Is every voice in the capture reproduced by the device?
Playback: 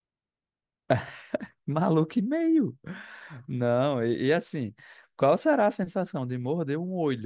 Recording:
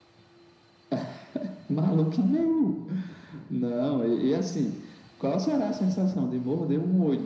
Yes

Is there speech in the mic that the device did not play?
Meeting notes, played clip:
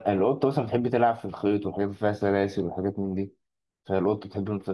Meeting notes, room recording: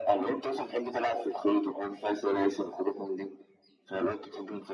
No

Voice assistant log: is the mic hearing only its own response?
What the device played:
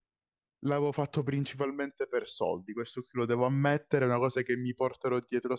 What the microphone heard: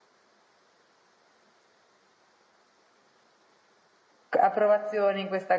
No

